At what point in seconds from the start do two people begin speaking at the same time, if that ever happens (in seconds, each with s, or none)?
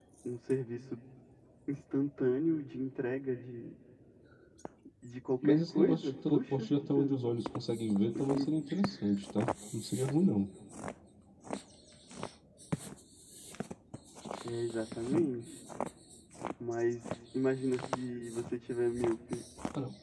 5.4 s